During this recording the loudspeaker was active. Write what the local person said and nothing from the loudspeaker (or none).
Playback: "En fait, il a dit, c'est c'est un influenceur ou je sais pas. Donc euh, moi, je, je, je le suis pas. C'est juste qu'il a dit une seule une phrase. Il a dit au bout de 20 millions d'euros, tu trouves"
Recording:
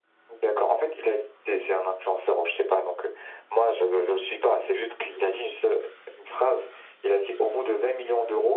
none